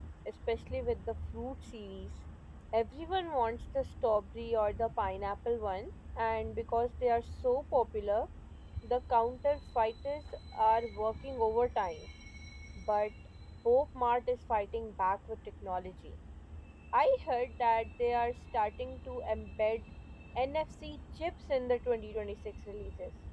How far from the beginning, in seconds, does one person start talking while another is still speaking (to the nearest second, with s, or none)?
none